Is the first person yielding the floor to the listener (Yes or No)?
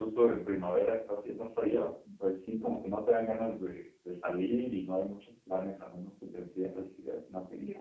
Yes